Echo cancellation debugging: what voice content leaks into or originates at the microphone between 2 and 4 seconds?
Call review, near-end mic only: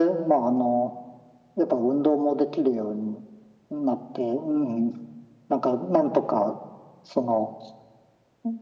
echo only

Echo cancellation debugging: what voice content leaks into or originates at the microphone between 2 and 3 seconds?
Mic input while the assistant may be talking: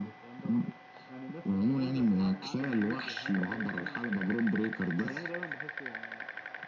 echo only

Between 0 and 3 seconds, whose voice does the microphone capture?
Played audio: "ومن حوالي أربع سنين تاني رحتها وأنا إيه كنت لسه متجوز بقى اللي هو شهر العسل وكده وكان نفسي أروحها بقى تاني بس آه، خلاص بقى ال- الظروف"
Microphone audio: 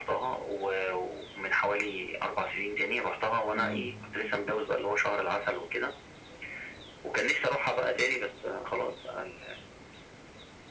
echo only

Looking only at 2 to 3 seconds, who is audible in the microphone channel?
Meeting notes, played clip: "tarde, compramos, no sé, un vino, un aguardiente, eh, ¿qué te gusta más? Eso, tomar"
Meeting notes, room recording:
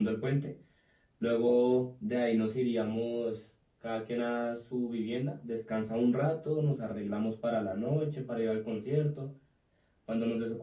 user only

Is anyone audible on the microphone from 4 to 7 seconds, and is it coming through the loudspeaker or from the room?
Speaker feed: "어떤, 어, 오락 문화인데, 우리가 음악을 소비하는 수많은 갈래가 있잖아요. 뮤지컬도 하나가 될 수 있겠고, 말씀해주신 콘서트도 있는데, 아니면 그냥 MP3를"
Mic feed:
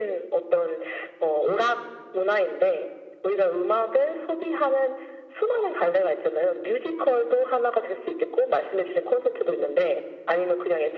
echo only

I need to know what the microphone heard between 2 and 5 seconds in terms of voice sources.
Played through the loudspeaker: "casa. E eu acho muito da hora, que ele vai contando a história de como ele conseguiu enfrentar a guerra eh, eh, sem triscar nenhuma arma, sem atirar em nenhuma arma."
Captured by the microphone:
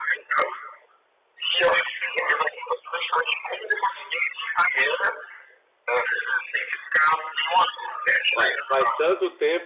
echo only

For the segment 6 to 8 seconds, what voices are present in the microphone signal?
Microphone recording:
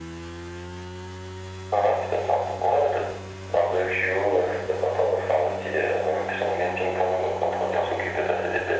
echo only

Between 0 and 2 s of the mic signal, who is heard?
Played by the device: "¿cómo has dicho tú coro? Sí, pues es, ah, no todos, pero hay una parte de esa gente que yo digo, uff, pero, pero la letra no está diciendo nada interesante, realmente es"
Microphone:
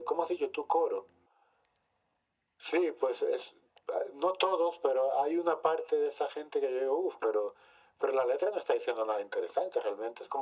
echo only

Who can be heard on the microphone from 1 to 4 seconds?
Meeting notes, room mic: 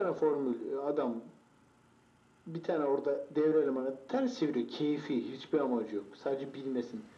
echo only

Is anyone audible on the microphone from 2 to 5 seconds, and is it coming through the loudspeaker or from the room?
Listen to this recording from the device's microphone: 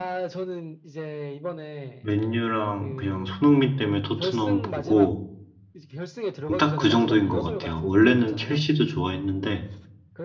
both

